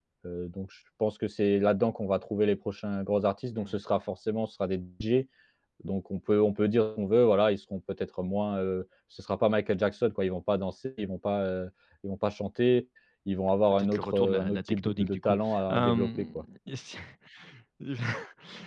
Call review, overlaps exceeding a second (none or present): present